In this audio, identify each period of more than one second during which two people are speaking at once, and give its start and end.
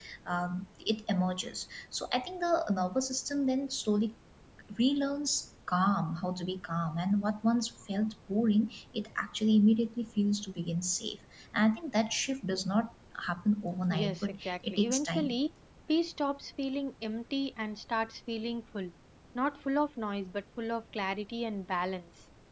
13.9-15.4

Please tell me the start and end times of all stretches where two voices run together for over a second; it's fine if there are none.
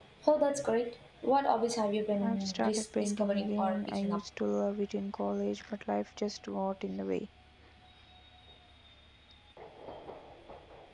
2.2-4.2

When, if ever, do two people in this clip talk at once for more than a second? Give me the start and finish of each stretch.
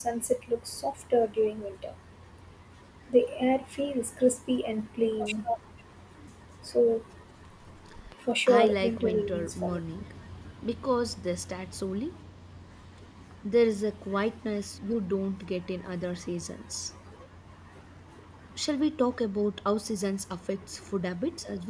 8.5-9.8

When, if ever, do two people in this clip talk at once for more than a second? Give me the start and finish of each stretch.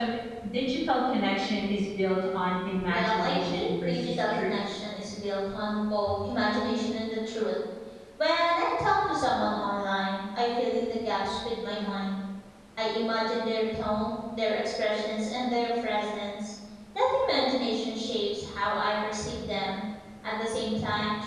2.9-4.6

